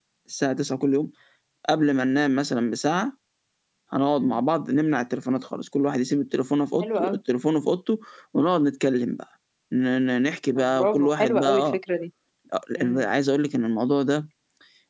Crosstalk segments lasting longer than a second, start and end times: 10.6-11.8

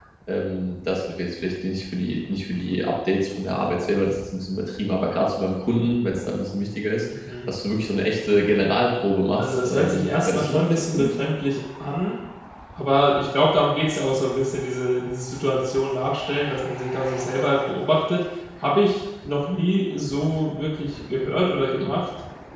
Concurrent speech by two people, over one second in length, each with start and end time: 9.4-11.1

